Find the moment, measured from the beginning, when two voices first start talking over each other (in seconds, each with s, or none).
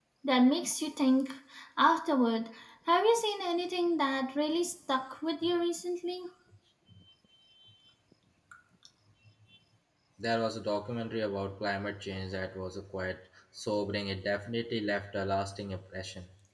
none